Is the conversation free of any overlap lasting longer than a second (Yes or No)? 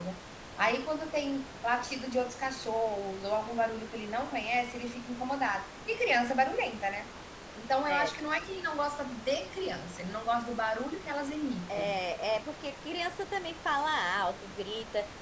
Yes